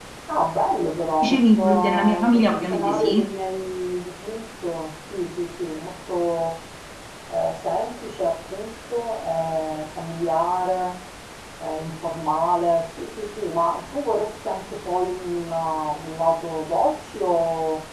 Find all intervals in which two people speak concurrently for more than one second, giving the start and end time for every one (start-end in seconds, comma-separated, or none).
1.2-3.2